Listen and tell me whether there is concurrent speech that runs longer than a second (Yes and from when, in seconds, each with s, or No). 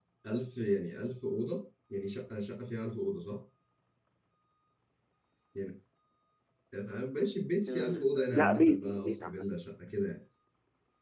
Yes, from 7.7 s